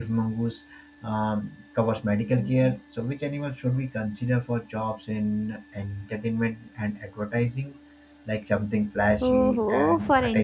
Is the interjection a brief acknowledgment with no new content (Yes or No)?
No